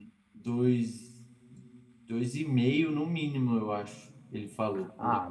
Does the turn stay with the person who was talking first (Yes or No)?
No